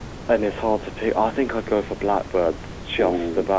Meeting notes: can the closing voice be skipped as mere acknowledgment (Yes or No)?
No